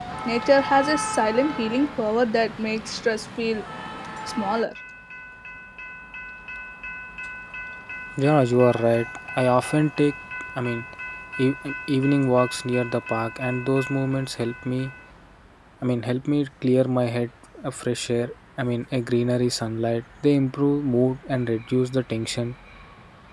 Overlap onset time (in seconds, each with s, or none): none